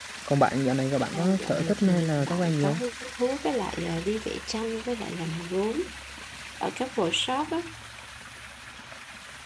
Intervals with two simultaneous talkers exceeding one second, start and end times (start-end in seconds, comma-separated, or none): 1.1-2.8